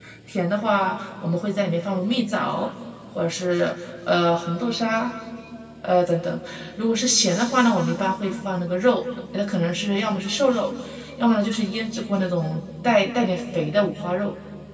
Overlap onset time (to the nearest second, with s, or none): none